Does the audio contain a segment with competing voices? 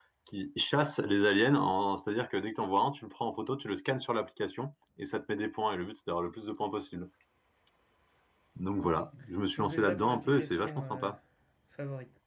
Yes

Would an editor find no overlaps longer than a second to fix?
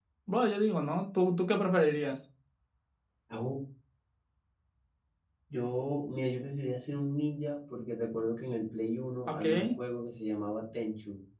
Yes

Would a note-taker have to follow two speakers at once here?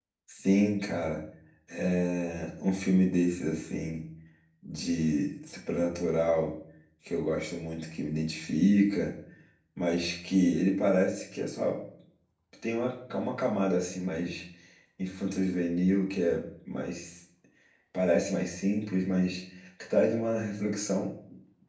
No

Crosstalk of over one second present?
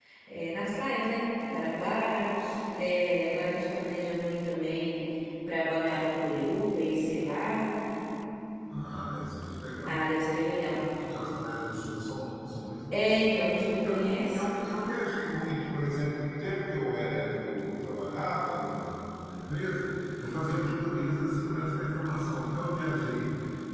No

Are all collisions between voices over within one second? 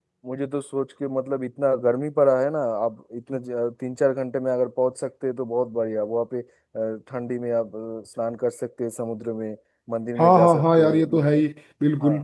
No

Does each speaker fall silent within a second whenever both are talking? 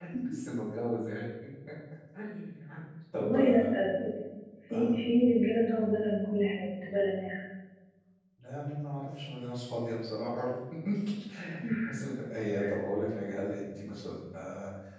Yes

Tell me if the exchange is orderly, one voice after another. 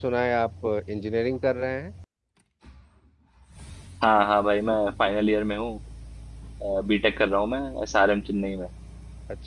Yes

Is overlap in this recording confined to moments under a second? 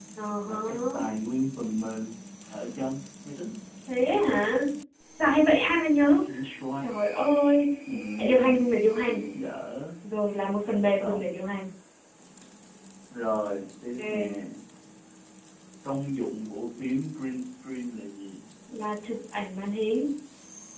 Yes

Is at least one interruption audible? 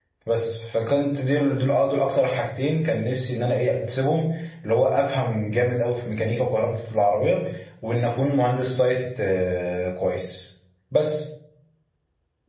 No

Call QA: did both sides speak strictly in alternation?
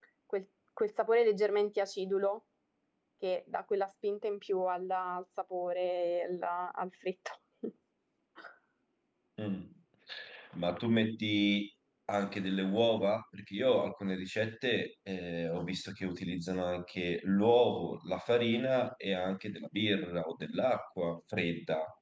Yes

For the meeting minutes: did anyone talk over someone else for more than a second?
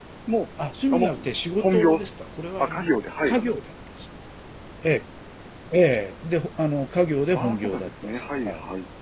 Yes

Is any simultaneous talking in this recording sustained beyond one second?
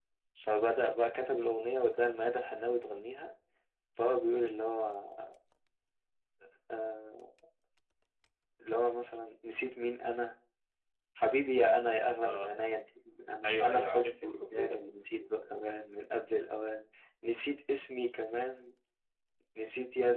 Yes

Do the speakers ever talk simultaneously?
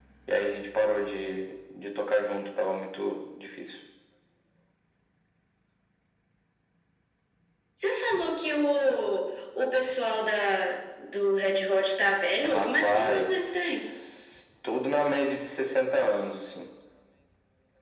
Yes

